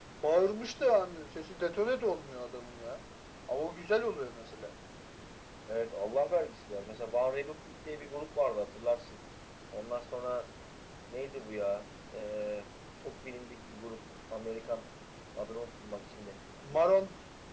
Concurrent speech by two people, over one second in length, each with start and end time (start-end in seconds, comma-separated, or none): none